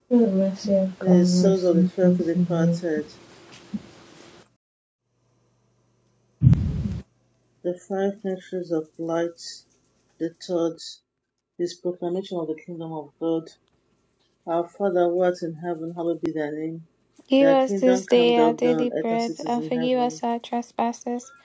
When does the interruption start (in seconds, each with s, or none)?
1.0 s